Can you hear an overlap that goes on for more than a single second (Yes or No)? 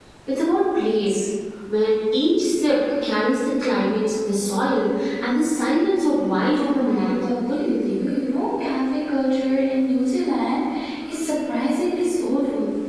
Yes